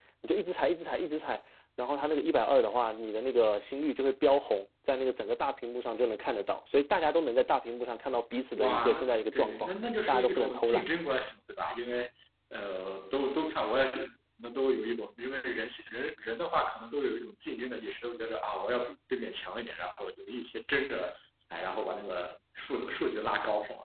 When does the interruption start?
9 s

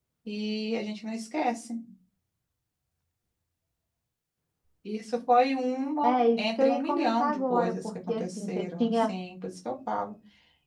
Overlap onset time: 6 s

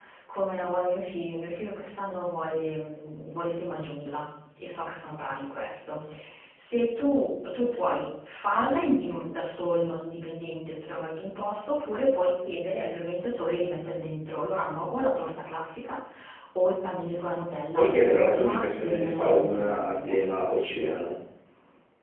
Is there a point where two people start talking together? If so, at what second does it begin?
18 s

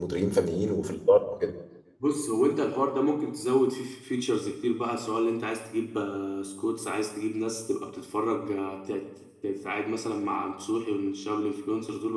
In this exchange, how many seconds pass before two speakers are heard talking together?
none

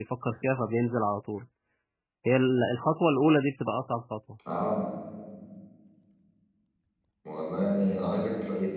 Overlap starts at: none

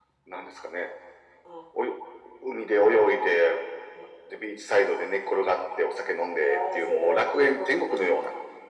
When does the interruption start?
6 s

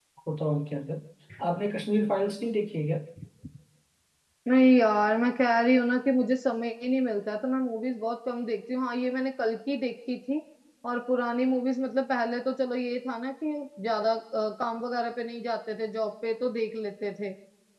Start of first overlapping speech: none

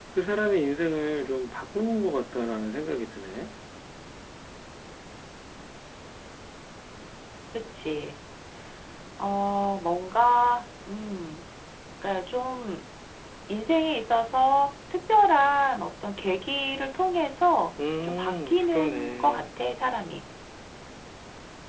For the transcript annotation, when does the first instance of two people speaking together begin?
18 s

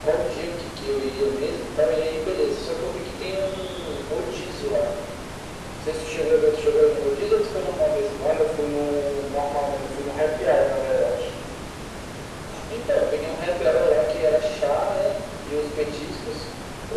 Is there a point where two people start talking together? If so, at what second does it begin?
none

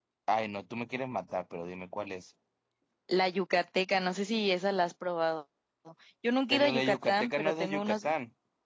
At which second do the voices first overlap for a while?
7 s

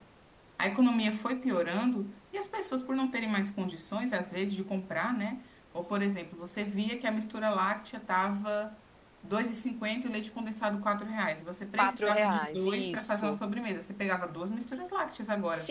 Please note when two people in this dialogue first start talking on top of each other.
12 s

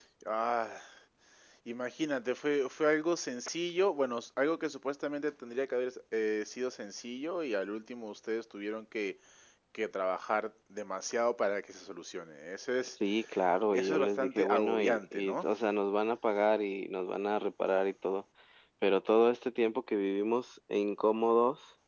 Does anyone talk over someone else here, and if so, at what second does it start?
14 s

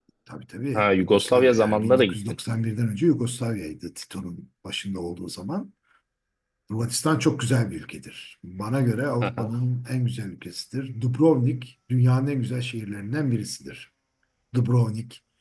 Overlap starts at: 1 s

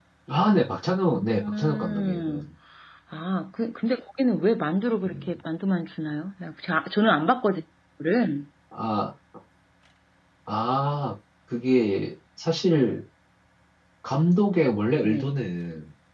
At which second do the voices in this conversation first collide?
1 s

